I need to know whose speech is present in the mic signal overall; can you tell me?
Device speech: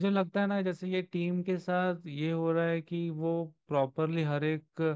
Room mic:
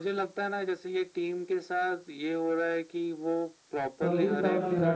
both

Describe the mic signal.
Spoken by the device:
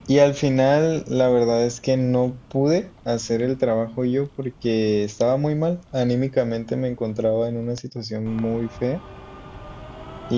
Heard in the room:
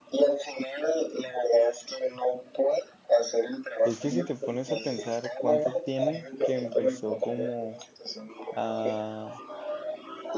both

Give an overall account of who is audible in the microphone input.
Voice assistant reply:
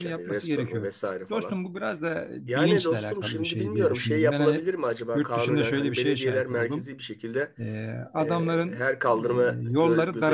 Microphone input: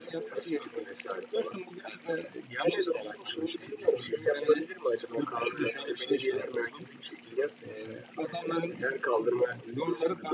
echo only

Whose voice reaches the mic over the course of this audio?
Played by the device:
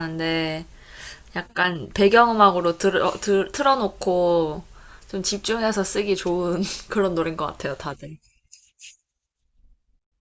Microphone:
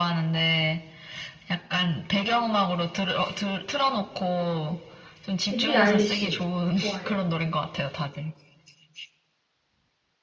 both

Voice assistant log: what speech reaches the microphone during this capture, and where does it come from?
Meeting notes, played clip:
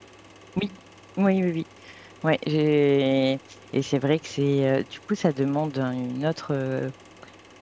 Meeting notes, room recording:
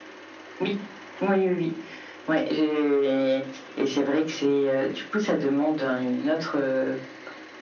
echo only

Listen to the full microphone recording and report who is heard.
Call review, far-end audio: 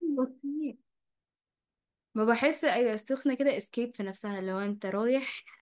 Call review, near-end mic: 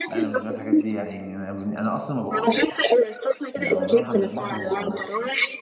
both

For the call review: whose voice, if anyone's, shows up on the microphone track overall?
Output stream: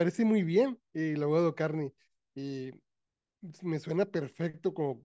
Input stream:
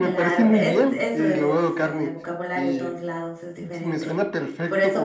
both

